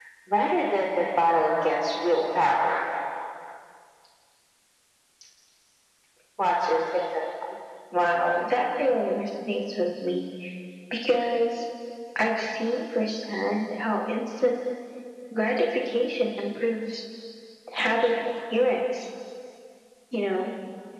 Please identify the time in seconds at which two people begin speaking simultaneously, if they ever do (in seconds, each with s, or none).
none